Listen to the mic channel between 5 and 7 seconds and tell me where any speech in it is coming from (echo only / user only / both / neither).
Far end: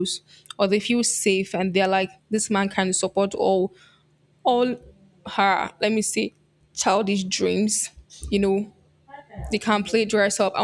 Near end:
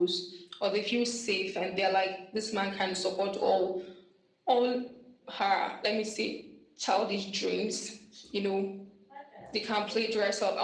echo only